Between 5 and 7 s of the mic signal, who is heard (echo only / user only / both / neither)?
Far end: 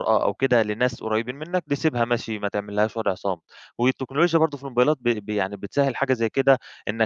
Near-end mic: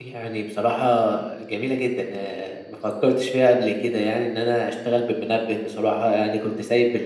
user only